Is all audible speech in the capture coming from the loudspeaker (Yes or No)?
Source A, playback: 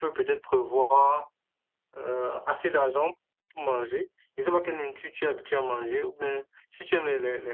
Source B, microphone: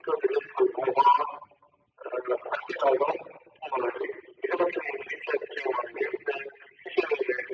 Yes